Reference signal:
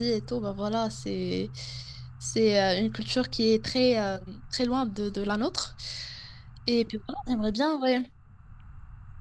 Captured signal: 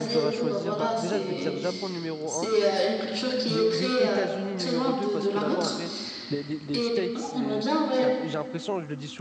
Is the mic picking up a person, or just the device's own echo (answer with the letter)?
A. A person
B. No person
A